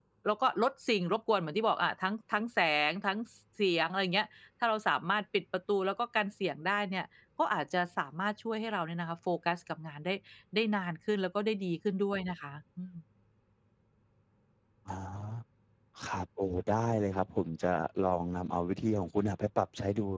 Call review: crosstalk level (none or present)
none